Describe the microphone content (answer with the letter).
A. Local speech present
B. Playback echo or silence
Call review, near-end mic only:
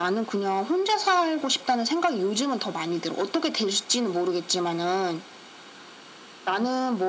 B